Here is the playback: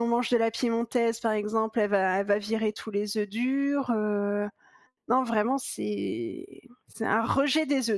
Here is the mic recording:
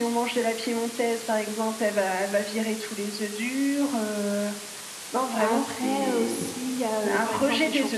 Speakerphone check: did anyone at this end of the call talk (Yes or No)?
Yes